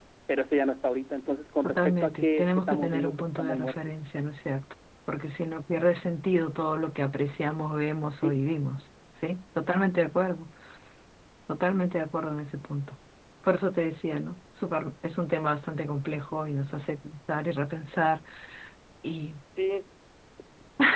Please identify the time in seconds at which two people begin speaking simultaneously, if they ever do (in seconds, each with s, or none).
1.6 s